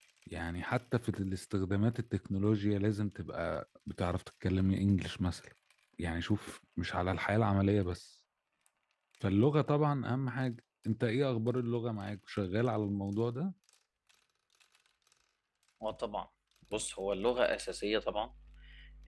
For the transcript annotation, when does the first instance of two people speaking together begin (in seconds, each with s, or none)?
none